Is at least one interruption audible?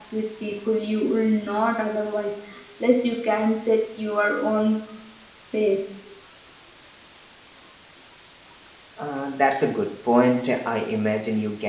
No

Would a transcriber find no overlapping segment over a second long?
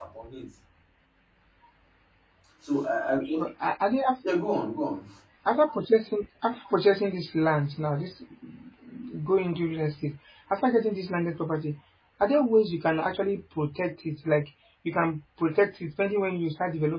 Yes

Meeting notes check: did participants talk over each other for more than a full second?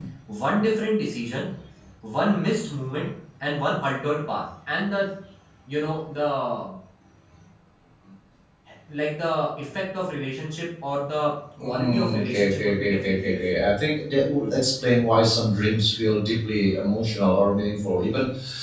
Yes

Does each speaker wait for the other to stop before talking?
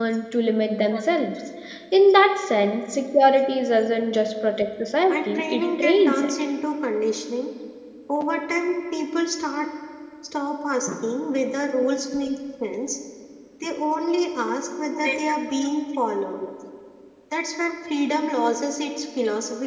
No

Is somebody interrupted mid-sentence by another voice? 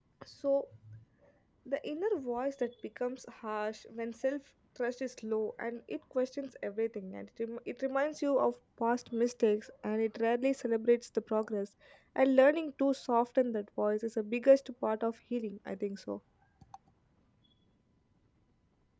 No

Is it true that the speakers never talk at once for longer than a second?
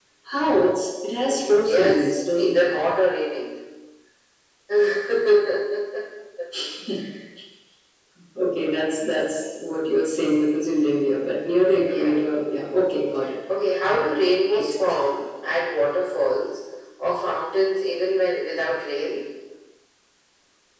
No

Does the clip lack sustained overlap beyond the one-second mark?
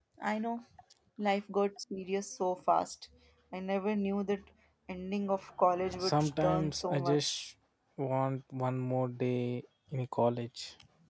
No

